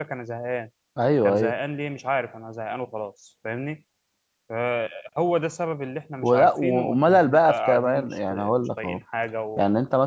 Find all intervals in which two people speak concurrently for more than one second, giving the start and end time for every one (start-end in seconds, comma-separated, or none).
6.2-9.0